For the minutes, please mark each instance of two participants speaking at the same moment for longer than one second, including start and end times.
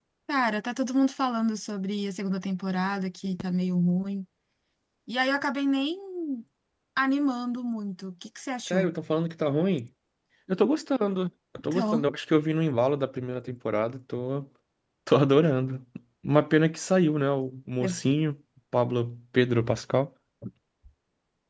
none

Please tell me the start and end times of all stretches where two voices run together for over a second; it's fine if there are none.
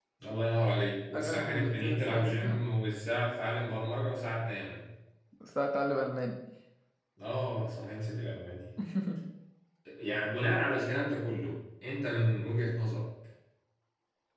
1.1-2.6

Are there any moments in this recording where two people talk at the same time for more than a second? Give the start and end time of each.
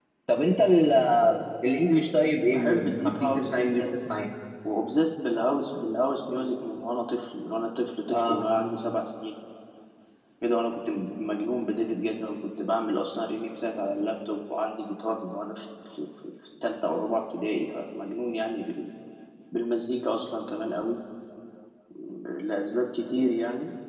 2.5-3.9

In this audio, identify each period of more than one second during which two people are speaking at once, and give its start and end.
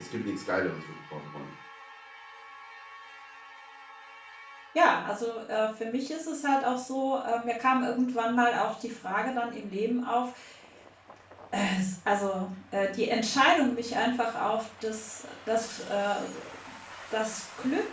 none

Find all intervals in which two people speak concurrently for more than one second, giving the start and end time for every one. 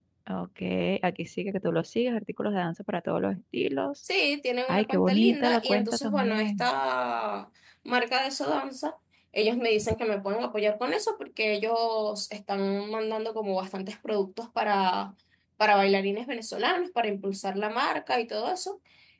4.7-6.7

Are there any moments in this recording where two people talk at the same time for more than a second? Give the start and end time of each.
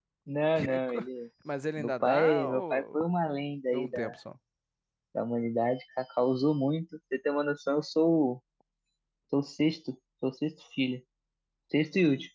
1.8-3.0

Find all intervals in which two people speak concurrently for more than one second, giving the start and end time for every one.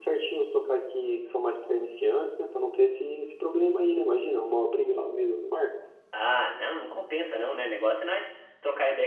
none

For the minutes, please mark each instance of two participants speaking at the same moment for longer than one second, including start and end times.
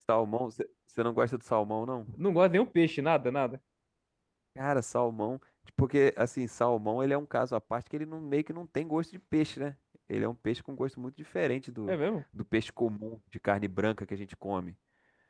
none

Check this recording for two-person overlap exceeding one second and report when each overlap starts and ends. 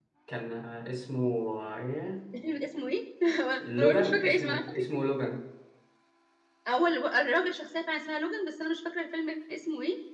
3.8-5.0

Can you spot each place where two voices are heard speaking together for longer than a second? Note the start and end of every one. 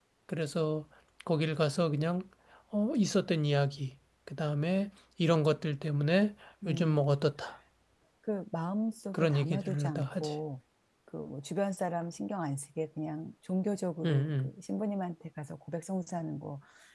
9.1-10.3

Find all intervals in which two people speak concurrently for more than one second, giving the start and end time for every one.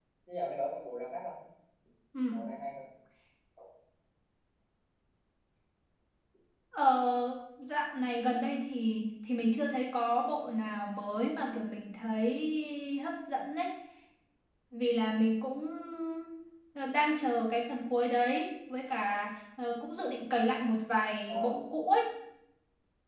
none

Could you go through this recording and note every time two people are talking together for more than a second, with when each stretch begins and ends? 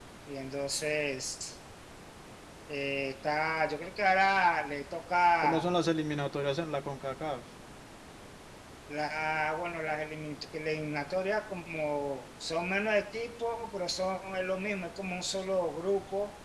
none

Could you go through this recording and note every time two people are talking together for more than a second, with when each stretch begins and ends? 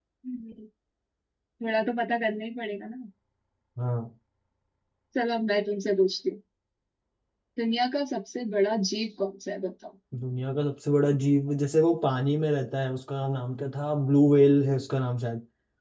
none

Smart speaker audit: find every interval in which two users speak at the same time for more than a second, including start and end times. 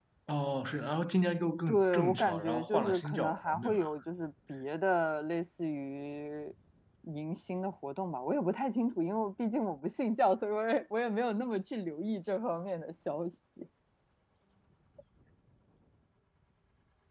1.7-3.9

